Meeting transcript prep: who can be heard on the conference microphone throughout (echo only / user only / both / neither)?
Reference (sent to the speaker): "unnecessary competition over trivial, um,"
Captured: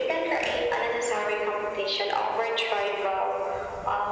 echo only